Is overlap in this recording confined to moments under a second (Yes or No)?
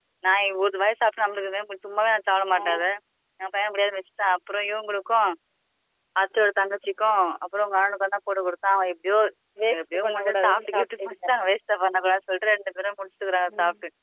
No